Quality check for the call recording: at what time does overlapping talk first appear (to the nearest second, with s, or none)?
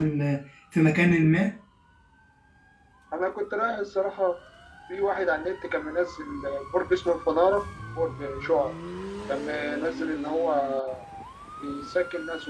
none